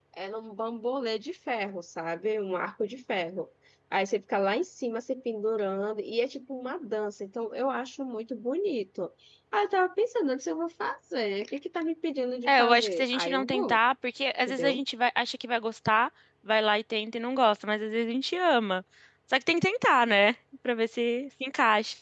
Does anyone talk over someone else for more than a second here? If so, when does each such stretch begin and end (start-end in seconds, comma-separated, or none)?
12.5-13.8